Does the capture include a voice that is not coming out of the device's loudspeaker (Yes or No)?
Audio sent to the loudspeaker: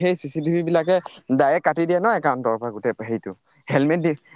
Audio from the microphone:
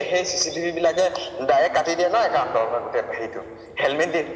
No